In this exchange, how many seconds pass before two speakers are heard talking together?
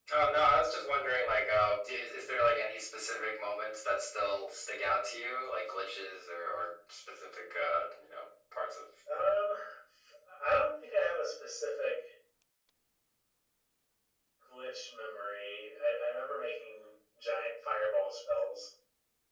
none

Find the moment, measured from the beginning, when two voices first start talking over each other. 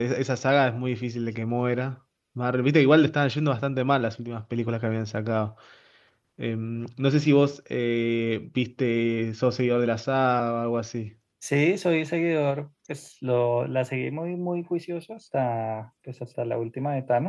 none

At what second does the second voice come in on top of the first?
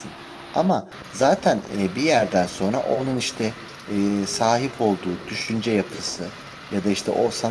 none

